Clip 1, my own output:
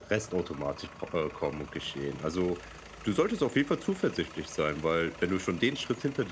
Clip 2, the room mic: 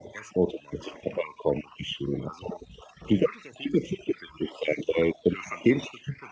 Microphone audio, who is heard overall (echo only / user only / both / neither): echo only